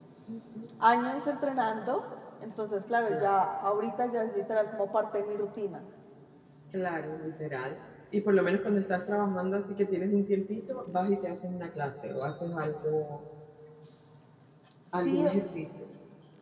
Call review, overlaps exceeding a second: none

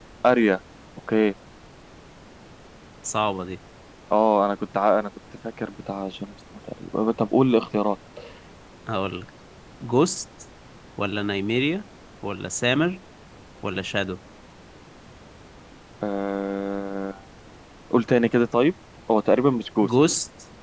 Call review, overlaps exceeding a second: none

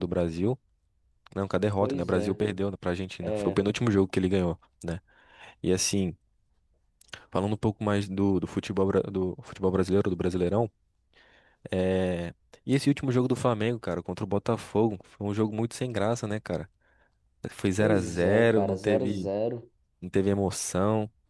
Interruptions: present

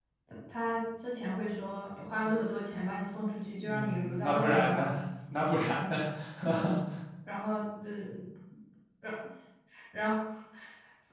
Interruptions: present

